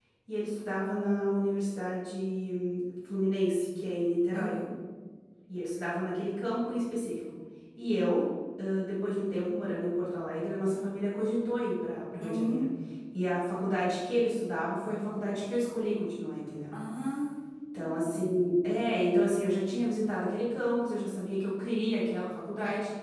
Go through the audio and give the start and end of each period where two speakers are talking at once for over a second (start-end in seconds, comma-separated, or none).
none